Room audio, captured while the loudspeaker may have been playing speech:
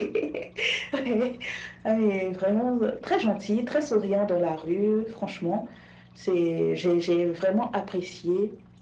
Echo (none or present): present